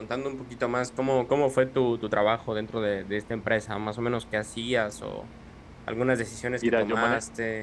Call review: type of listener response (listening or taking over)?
taking over